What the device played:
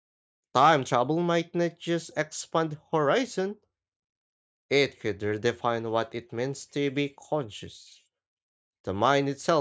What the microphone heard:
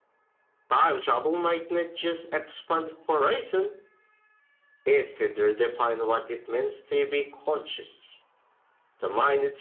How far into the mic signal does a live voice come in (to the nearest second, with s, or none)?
none